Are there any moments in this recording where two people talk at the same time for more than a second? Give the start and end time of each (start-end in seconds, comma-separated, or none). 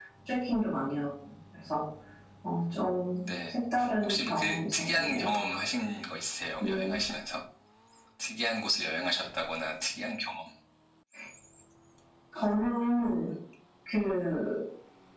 4.0-5.3